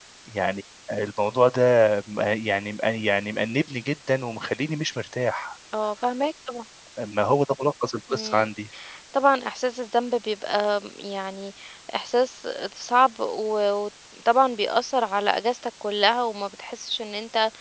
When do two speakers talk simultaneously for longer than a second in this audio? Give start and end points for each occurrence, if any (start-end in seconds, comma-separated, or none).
none